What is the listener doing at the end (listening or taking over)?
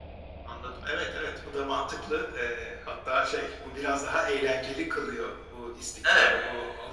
listening